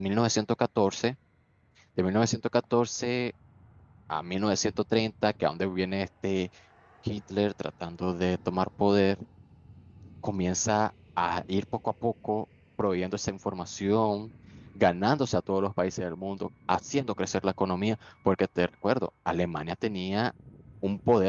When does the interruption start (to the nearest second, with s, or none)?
none